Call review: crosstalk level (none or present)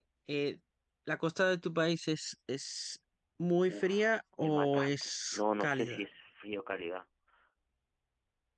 present